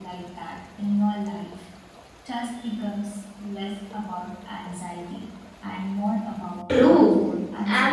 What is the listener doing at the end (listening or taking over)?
taking over